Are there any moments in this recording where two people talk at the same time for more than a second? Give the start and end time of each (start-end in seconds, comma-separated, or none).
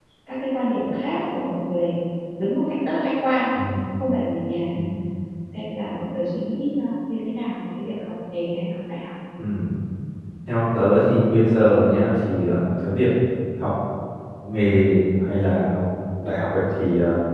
none